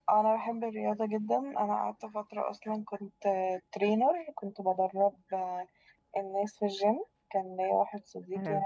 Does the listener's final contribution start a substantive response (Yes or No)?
No